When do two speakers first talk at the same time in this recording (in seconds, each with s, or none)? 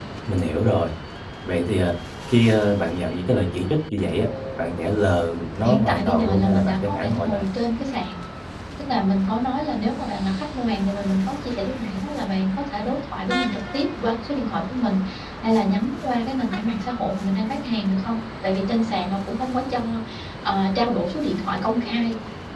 5.6 s